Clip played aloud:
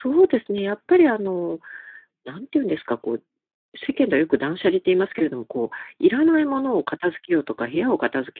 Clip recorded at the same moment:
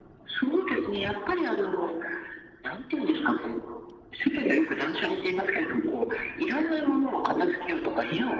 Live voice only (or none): none